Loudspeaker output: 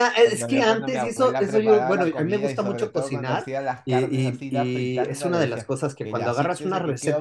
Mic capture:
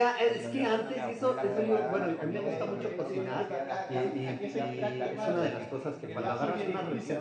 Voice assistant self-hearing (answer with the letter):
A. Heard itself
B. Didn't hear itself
A